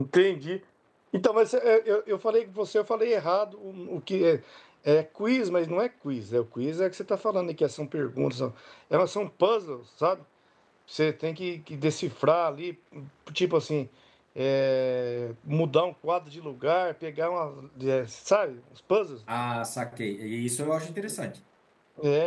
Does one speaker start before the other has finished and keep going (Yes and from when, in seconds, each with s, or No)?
No